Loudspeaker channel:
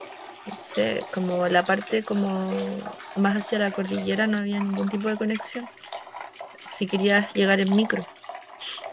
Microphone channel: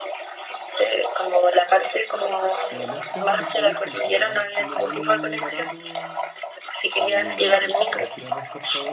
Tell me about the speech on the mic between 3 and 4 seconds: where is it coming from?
both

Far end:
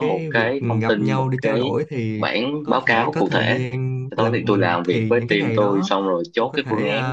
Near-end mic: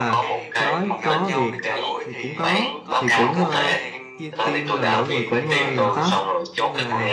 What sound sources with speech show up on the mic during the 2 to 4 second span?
both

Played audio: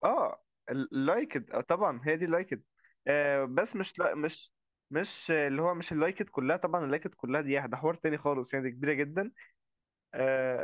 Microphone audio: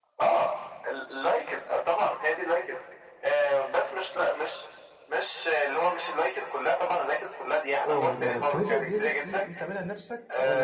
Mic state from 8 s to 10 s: both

